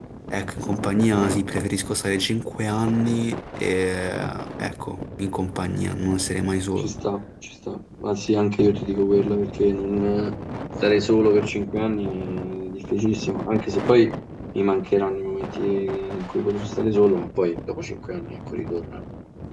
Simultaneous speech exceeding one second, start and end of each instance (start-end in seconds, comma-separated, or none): none